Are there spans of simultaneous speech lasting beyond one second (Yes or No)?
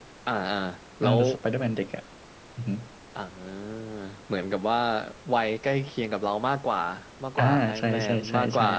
Yes